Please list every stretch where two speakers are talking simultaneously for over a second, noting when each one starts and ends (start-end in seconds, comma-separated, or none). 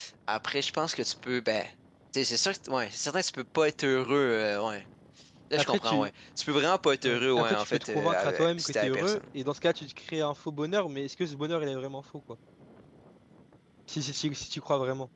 7.0-9.2